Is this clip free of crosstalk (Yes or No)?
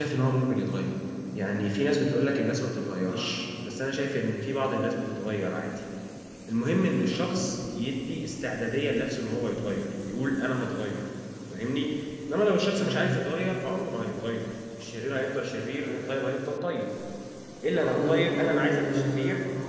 No